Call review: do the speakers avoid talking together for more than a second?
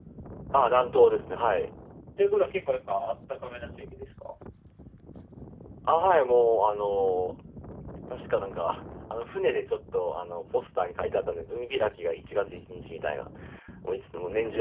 Yes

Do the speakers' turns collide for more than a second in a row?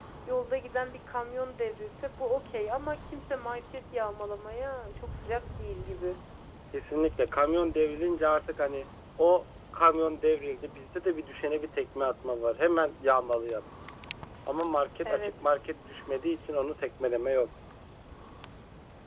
No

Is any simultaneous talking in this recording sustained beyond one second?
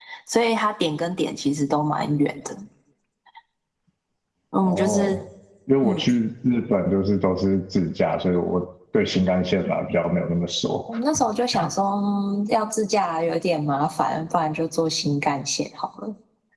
No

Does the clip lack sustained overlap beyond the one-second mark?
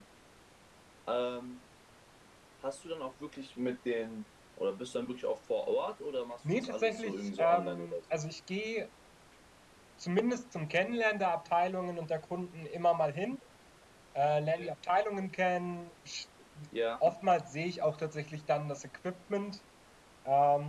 No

